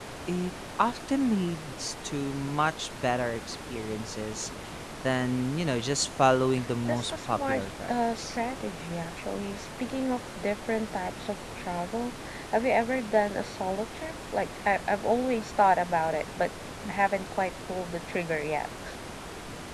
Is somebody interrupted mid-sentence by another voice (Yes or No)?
Yes